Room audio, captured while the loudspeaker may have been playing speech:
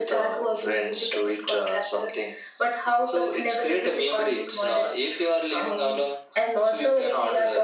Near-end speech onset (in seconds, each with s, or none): none